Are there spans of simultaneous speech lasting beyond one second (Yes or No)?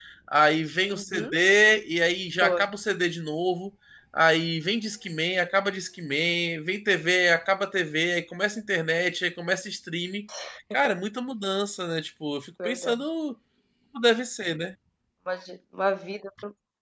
No